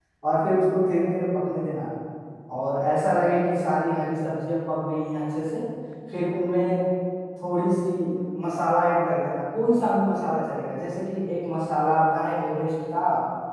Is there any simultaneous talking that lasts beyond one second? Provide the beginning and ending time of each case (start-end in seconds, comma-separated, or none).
none